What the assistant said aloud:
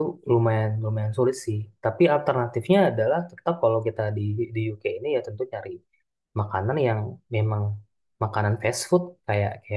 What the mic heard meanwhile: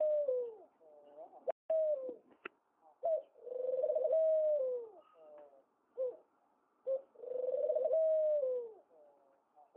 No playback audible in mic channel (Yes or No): Yes